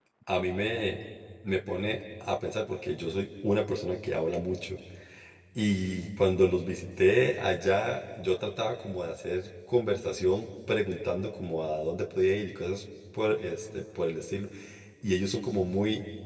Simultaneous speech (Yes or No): No